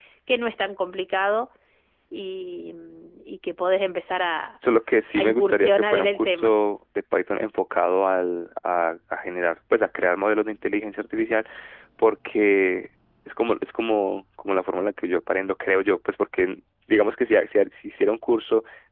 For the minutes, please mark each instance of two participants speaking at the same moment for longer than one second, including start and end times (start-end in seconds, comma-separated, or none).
5.2-6.5